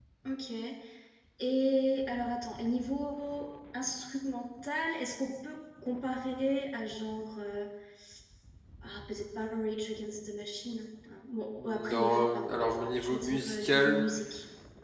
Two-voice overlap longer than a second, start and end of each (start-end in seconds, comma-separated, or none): 11.6-14.0